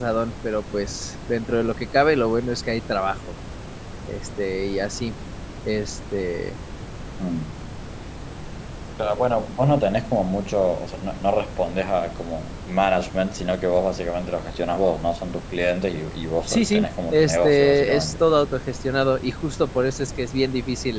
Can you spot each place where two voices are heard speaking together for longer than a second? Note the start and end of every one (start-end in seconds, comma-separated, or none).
16.5-18.1